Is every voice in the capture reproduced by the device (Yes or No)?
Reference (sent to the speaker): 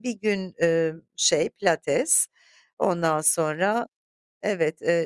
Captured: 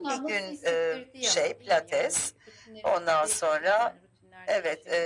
No